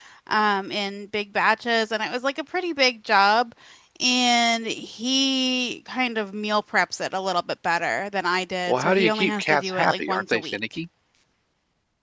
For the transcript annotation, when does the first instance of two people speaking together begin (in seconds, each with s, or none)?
8.7 s